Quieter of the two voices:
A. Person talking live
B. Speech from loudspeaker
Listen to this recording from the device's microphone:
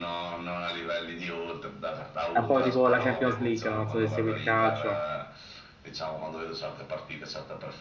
B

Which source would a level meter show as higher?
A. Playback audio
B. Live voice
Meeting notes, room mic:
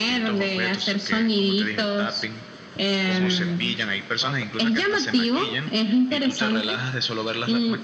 A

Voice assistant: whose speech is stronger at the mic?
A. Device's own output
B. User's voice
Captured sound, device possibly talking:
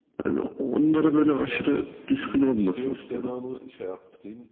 A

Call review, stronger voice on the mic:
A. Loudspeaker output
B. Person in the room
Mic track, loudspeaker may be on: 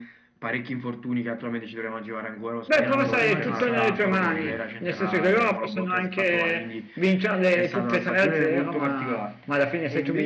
A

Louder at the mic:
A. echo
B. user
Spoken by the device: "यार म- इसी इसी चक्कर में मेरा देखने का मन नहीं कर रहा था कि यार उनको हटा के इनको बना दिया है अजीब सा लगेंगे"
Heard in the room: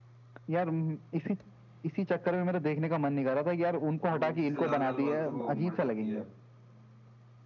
A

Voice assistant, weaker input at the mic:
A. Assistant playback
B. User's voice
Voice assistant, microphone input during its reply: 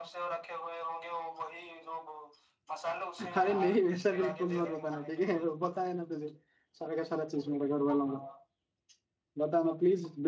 A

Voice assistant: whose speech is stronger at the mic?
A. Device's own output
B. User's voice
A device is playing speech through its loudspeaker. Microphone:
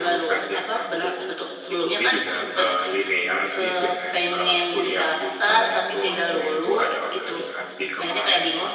A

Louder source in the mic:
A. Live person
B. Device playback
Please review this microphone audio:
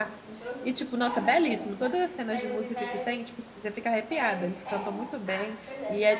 A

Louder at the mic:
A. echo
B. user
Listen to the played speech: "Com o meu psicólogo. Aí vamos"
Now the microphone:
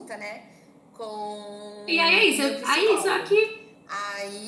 B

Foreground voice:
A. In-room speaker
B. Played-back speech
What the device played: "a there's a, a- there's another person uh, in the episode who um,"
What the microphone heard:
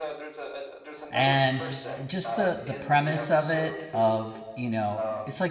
A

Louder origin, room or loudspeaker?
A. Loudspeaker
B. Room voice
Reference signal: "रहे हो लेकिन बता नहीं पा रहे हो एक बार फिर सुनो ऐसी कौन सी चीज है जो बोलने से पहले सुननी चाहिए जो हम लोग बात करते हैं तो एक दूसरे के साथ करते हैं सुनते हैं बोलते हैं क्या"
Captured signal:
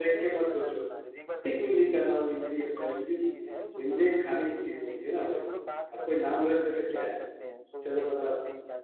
B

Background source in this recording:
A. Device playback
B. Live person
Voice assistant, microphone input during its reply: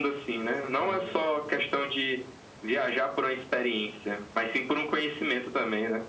B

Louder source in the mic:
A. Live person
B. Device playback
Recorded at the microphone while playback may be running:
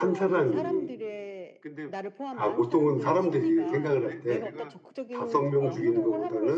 A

